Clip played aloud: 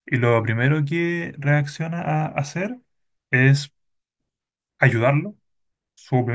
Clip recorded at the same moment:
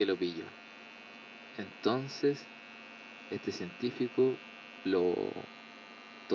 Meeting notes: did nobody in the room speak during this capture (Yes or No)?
No